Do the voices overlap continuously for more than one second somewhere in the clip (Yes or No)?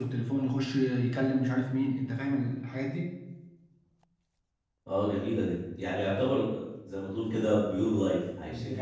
No